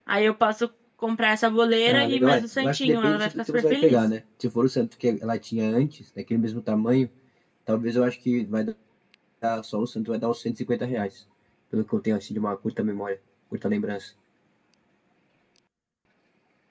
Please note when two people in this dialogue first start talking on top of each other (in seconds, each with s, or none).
1.9 s